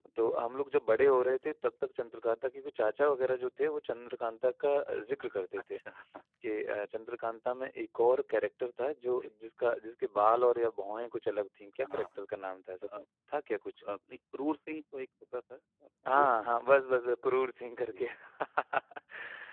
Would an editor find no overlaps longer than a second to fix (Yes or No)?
Yes